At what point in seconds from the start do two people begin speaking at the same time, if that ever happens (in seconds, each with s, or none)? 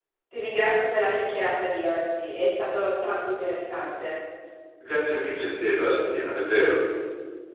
none